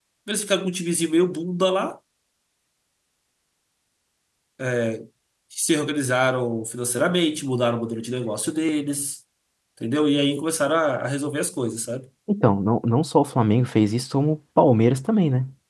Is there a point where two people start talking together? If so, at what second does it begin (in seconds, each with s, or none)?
none